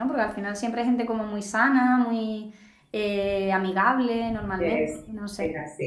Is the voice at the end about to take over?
Yes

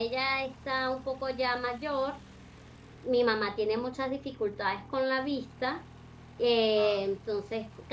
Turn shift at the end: No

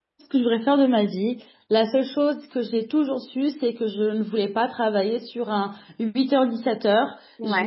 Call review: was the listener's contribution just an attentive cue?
Yes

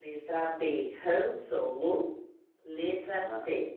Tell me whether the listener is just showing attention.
Yes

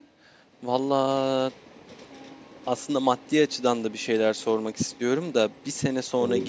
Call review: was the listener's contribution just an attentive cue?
Yes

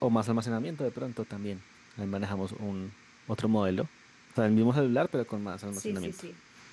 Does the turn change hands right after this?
Yes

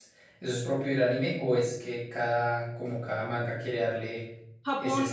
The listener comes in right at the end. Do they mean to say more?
Yes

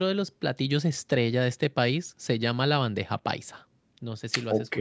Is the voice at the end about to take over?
Yes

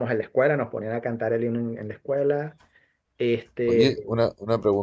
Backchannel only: No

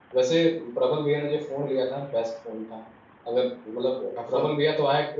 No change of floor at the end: Yes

